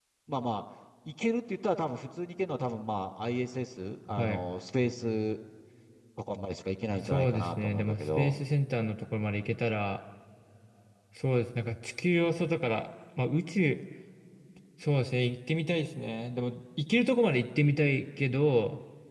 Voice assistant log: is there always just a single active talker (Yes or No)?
No